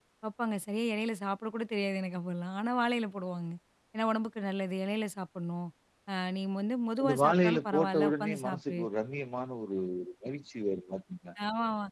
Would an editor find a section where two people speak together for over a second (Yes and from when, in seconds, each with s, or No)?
Yes, from 7.0 s